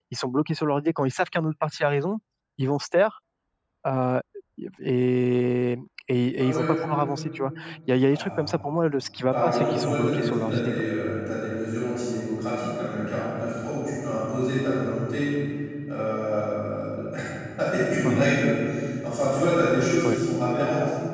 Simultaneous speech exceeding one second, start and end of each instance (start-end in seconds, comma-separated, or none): 9.3-10.8